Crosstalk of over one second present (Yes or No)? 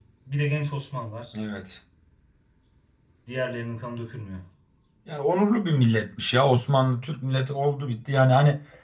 No